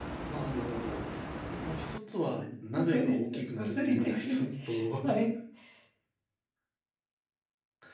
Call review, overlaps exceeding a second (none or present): present